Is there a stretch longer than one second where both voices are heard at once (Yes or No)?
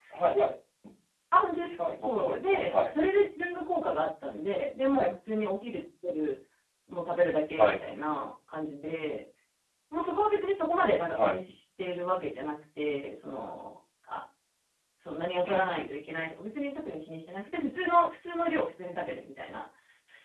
Yes